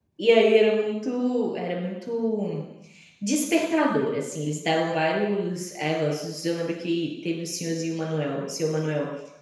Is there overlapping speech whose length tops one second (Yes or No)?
No